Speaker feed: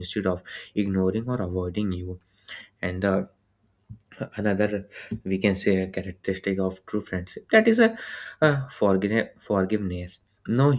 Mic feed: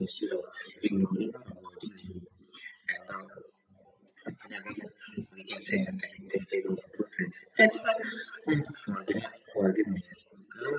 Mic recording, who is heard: echo only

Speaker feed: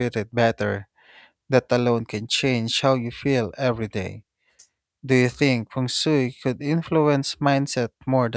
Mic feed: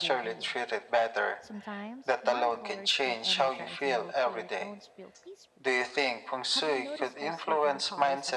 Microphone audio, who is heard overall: both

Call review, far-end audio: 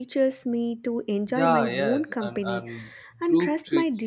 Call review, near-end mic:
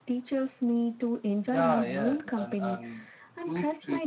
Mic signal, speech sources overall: echo only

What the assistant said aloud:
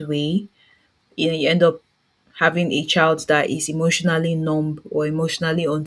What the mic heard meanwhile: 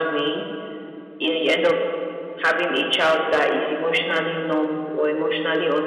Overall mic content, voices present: echo only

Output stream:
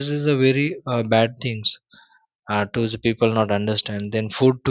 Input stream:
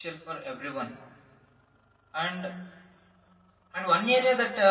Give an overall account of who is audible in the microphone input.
user only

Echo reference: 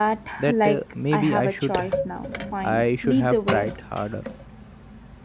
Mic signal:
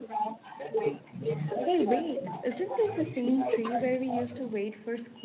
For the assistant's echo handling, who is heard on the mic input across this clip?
both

